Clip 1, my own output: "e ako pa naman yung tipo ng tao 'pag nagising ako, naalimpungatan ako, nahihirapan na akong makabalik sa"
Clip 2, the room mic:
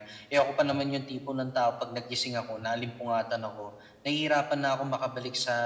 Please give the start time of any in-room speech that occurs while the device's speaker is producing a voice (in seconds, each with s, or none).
none